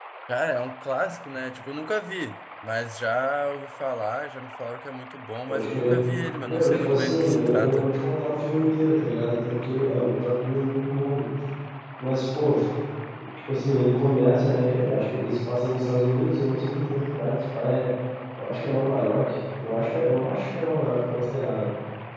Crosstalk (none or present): present